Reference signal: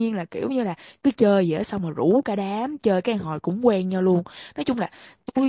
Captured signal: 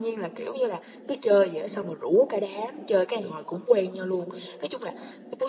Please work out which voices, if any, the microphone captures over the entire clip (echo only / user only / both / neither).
echo only